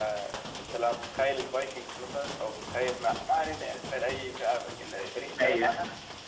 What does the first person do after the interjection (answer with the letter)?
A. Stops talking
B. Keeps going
B